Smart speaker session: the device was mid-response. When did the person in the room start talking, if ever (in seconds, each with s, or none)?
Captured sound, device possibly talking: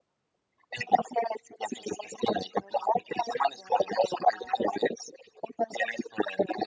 none